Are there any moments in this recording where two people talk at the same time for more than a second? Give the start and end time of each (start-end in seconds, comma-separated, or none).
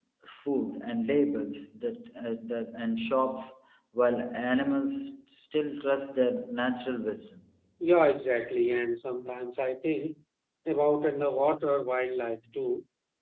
none